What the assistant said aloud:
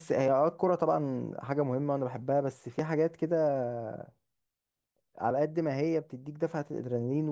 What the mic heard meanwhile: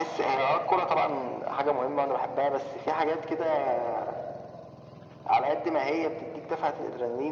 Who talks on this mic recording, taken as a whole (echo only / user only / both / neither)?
echo only